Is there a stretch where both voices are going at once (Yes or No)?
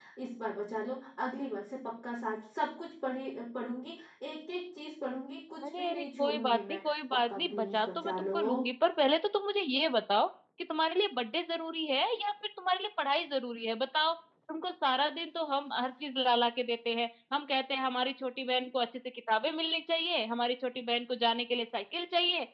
Yes